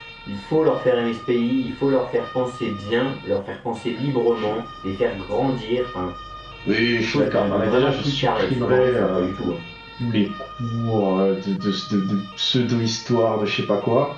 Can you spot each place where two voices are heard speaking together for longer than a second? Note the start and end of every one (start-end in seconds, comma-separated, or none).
7.0-9.2